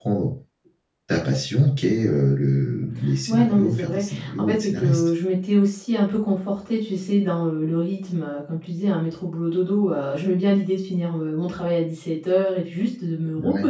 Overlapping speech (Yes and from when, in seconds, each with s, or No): Yes, from 3.3 s